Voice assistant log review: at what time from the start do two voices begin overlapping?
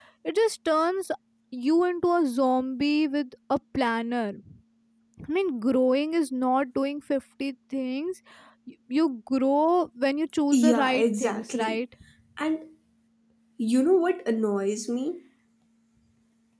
10.5 s

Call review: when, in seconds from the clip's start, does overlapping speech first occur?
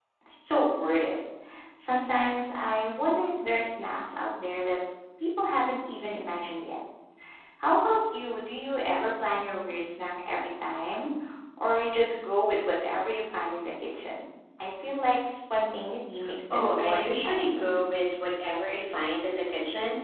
16.5 s

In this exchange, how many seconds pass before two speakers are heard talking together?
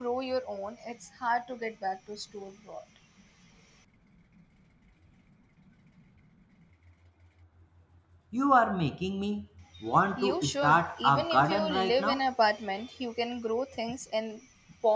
10.2 s

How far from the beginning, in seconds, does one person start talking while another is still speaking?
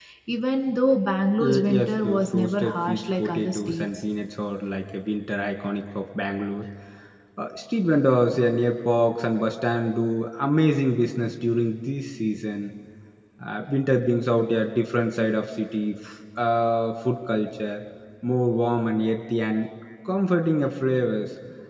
1.4 s

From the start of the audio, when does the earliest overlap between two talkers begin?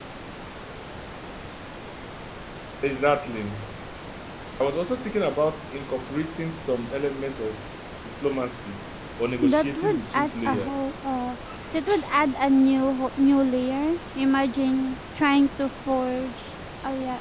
9.4 s

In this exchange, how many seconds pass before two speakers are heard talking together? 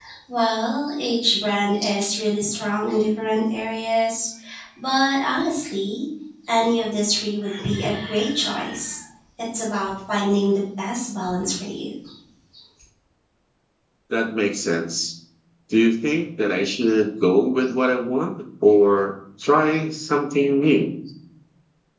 none

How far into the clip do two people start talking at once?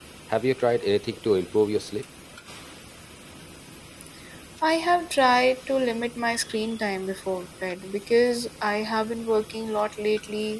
none

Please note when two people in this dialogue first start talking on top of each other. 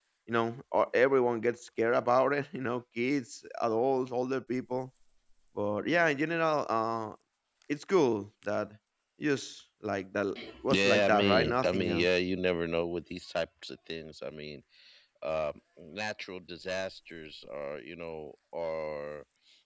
10.7 s

